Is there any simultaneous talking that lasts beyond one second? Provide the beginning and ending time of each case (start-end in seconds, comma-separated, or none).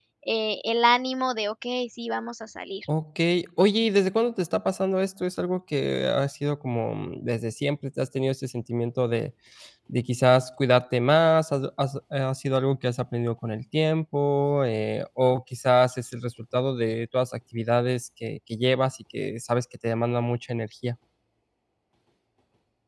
none